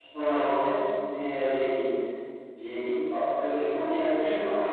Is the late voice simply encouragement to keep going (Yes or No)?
No